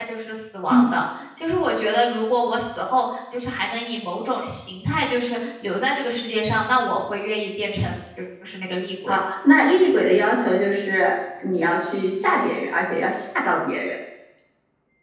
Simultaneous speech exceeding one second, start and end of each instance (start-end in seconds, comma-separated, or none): none